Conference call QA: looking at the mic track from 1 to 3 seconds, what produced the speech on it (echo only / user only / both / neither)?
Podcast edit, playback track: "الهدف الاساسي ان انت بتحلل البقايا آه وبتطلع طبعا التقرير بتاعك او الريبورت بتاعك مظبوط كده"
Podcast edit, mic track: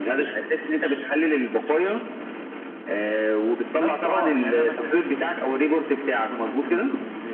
echo only